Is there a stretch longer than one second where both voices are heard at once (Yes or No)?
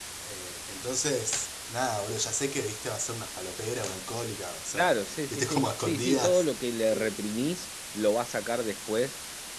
Yes